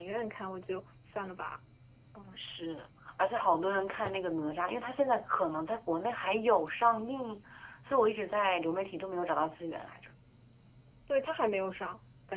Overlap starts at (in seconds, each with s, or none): none